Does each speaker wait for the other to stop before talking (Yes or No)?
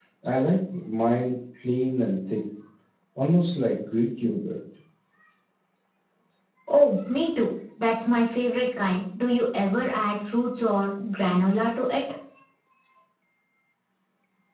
Yes